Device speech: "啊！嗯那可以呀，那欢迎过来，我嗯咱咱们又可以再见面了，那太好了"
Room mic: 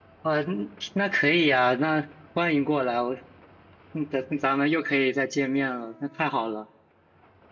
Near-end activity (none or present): none